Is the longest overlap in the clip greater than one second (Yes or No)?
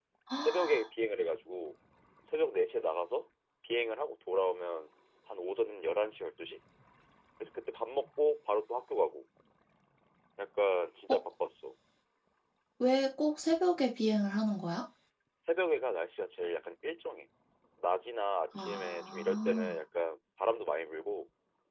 Yes